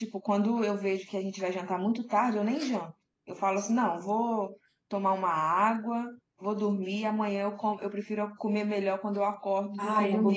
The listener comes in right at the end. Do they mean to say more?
Yes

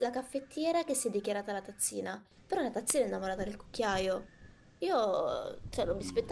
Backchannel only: Yes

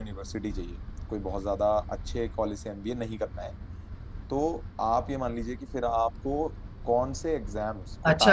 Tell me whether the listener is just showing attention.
No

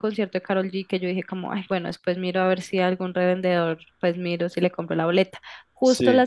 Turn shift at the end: No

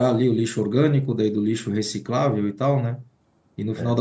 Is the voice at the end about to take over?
No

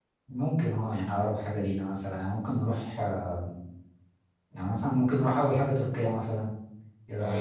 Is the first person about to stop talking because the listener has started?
Yes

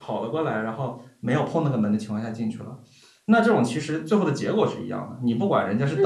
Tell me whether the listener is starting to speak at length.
Yes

